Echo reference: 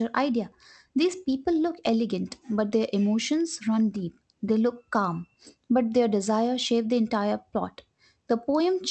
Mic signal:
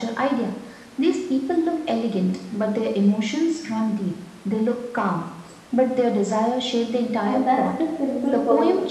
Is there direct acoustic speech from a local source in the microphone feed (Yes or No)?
Yes